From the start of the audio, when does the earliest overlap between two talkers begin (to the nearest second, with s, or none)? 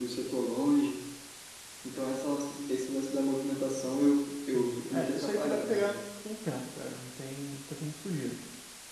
5 s